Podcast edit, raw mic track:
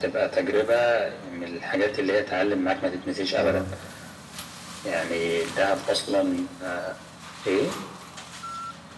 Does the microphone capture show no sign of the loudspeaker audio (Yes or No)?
No